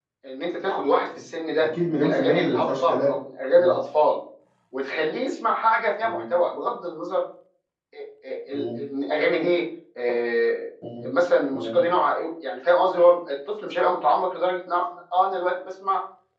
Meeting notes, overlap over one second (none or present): present